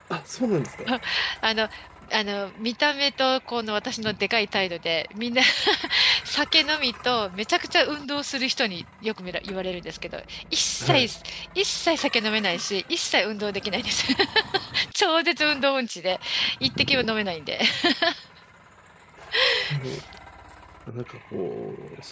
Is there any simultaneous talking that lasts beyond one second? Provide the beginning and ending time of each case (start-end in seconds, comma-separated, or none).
none